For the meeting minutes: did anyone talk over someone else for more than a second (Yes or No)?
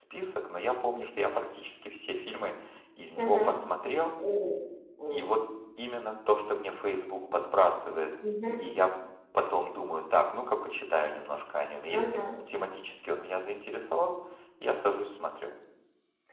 No